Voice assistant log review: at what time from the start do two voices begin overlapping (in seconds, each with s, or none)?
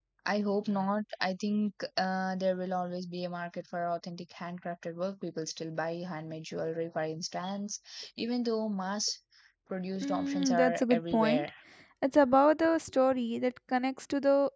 10.0 s